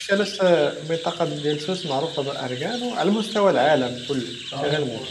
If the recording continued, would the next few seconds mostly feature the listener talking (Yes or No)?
Yes